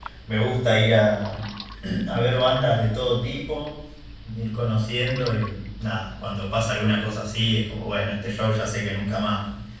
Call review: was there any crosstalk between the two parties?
No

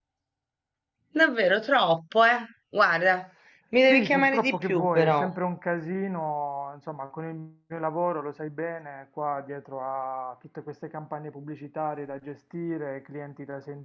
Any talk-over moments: Yes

